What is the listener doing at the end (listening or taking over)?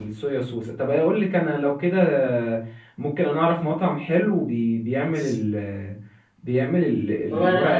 listening